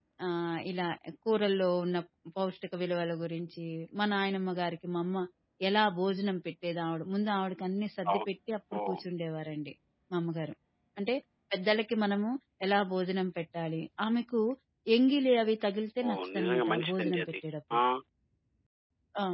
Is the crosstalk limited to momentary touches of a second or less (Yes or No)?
No